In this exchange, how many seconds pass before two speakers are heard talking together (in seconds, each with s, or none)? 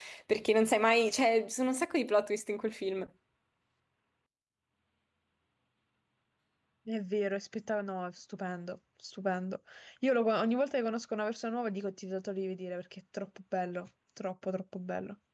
none